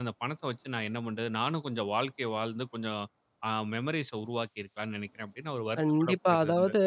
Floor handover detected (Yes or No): Yes